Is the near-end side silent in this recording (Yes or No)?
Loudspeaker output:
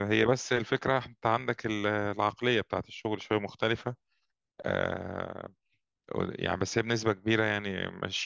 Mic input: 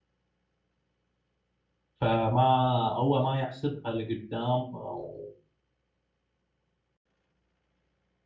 No